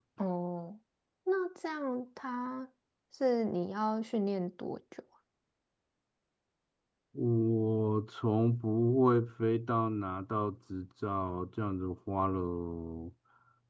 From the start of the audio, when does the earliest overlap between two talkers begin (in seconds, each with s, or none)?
none